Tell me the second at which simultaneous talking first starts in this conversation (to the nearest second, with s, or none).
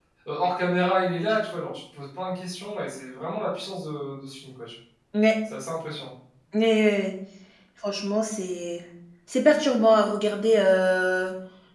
none